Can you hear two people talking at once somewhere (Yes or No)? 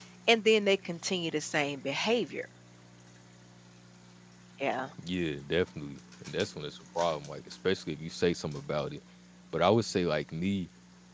No